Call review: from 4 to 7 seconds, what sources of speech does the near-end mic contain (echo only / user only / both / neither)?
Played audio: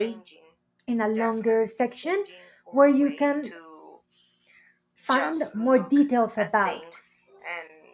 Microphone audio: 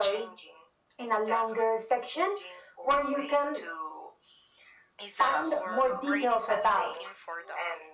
both